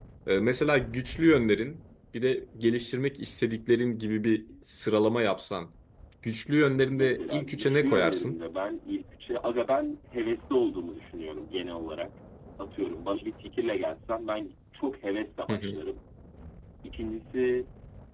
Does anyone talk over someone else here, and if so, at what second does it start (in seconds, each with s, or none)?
7.0 s